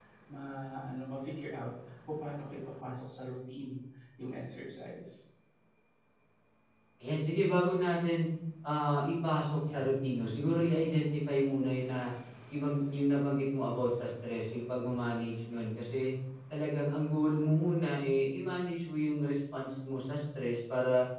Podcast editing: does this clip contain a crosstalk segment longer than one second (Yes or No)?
No